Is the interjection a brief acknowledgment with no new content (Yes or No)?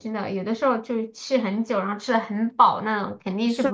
No